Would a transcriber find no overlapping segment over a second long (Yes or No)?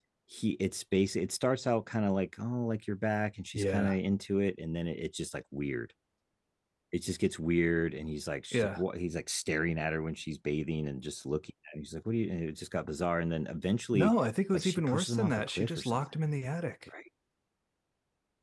No